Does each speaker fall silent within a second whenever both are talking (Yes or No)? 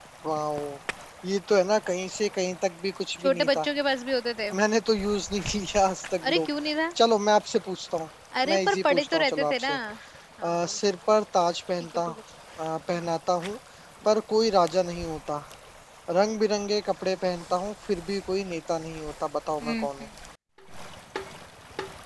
No